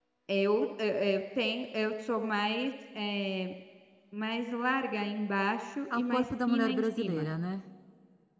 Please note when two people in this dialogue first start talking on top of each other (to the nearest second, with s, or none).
6 s